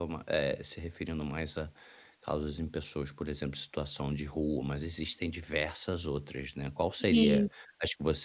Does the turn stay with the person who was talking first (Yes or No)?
Yes